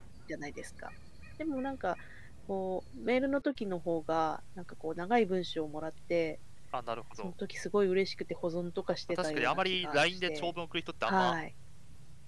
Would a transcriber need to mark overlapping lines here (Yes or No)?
Yes